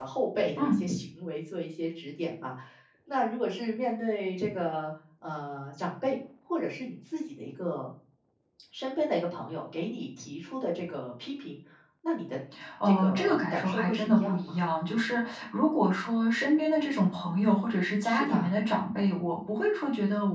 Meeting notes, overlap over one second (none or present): present